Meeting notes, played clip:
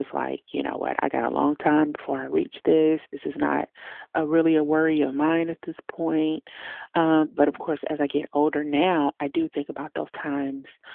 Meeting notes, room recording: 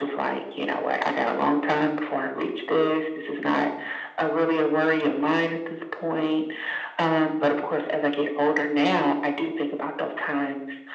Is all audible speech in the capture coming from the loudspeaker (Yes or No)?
Yes